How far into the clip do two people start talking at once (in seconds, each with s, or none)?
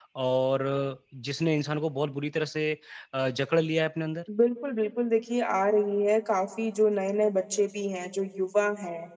none